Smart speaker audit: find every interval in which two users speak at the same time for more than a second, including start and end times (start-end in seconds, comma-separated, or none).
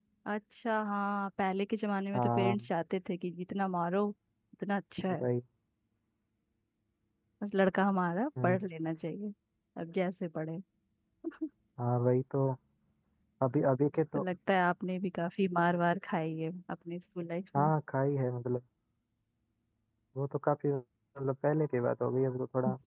none